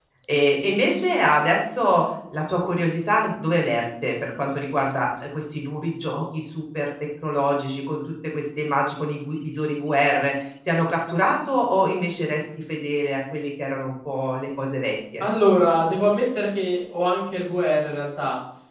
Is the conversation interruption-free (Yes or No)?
Yes